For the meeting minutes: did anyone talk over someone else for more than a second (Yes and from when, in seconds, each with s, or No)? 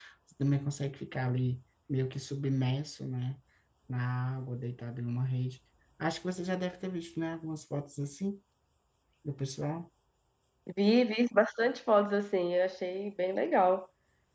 No